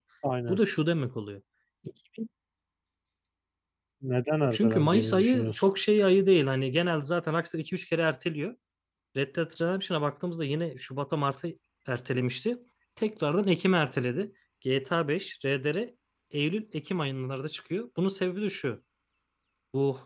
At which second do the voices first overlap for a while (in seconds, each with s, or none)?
4.5 s